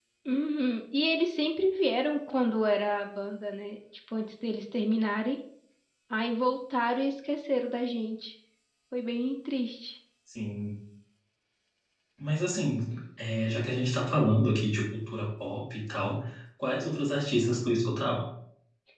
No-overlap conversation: Yes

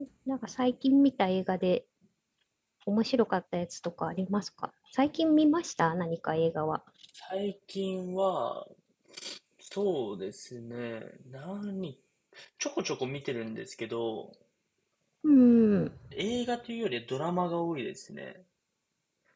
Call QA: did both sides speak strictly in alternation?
Yes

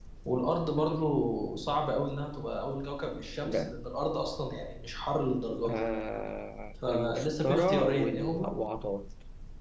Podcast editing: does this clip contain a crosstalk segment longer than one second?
Yes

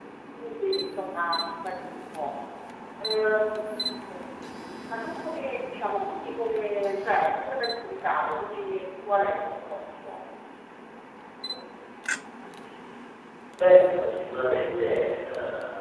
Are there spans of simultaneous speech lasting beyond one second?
No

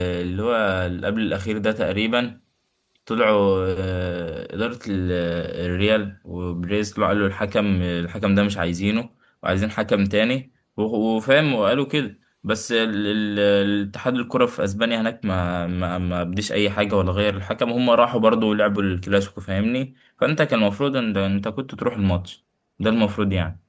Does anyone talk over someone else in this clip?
No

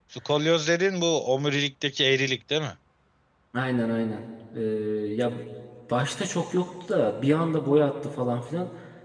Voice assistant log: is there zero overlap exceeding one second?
Yes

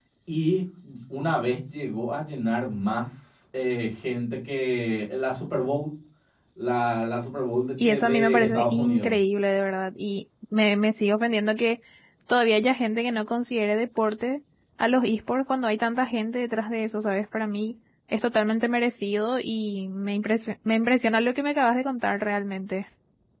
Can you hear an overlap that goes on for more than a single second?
Yes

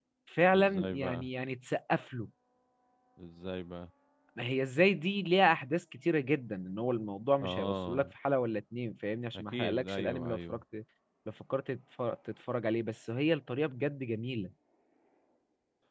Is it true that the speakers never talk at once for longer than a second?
No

